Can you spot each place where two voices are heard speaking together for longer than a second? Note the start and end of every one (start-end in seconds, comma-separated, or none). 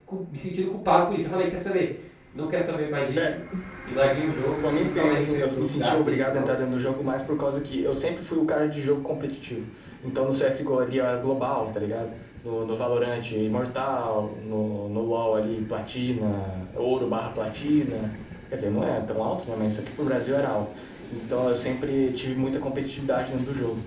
4.6-6.5